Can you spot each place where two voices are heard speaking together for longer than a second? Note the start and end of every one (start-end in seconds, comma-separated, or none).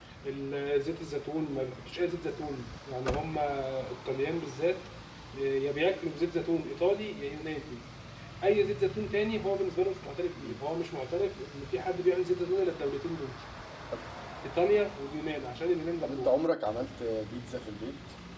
none